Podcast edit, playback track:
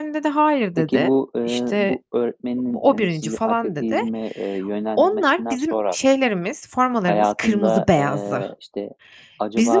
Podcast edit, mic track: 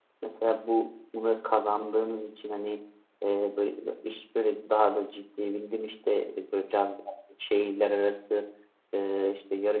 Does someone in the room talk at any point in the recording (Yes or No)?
Yes